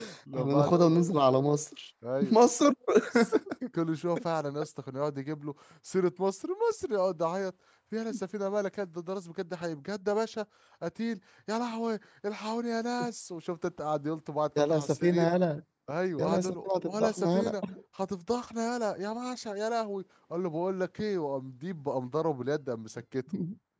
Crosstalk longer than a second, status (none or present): present